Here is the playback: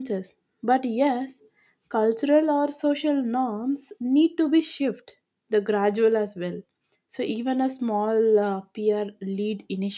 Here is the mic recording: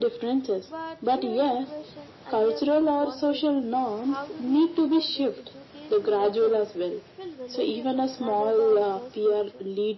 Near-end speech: present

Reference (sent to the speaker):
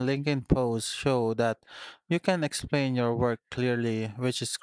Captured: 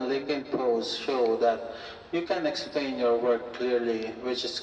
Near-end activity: none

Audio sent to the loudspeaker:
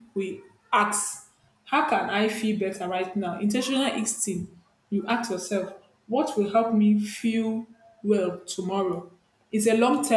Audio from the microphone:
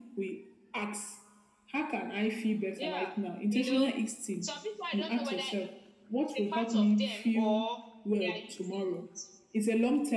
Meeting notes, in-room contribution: present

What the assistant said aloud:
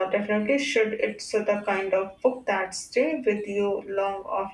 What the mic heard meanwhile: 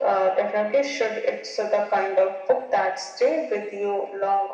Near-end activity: none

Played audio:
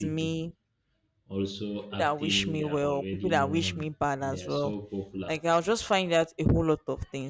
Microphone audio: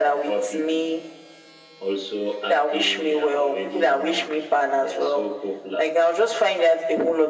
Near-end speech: none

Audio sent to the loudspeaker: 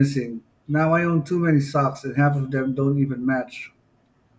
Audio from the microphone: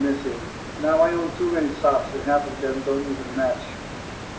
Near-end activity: none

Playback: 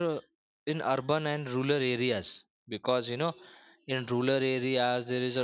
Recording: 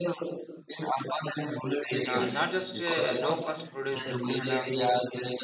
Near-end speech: present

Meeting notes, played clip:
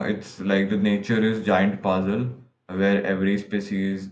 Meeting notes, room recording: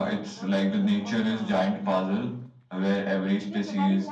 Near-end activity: present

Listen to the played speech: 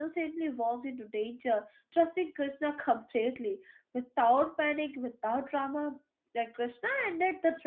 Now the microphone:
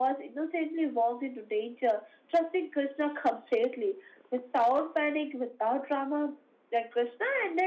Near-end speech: none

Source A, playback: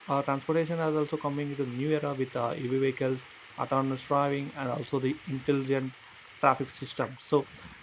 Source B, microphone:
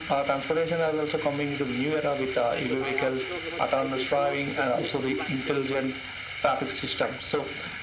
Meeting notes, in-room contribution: present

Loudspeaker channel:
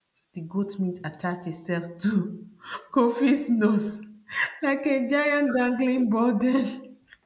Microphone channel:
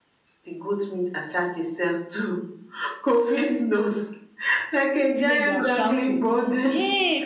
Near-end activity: present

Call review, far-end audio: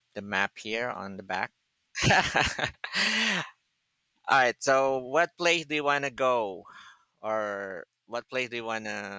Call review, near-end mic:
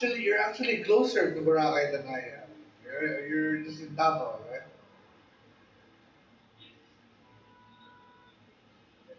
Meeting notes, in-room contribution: present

